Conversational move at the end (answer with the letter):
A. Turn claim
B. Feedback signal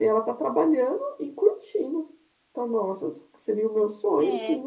A